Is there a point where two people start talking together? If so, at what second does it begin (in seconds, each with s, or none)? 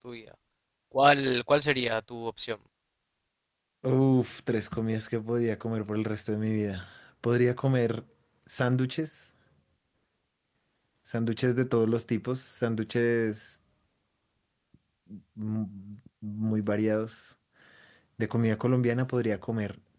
none